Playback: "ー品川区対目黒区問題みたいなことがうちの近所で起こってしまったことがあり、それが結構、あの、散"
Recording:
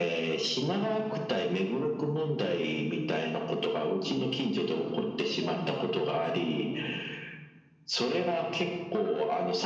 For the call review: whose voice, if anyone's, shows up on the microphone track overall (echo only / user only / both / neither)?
both